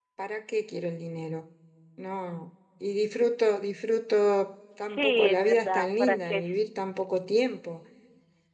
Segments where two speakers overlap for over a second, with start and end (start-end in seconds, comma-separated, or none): 4.9-6.5